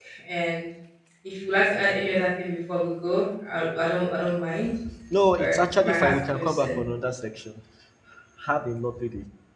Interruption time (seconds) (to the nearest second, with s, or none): 5 s